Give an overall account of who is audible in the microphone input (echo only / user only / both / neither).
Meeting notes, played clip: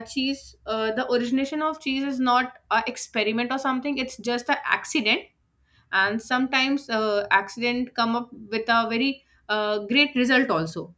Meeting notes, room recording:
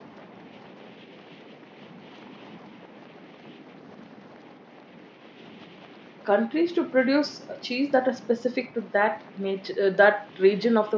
user only